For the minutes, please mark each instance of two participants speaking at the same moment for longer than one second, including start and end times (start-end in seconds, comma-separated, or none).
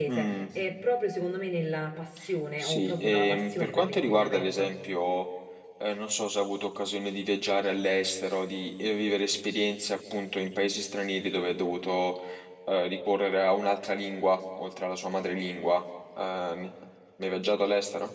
2.6-4.7